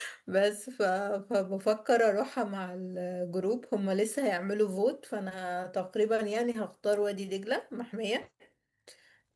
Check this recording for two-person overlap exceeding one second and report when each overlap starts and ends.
none

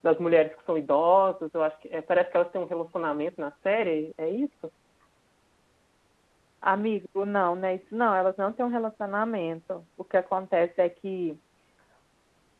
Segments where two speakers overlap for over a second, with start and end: none

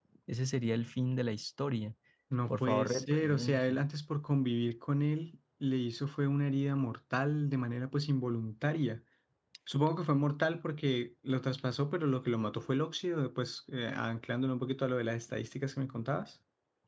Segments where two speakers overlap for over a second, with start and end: 2.5-3.8

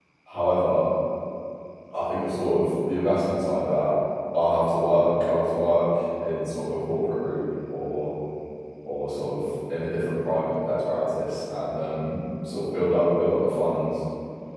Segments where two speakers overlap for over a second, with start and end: none

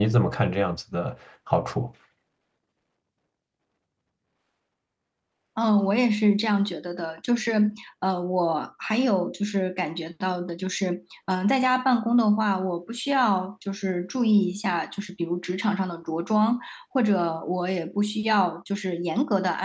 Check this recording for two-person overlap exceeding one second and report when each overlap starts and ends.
none

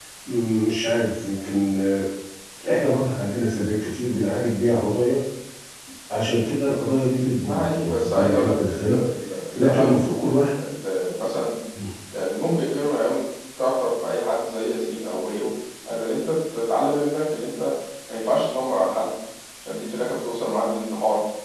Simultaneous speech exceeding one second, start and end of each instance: 7.5-9.0

